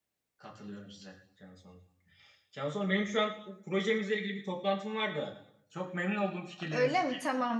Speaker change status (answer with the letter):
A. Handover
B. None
A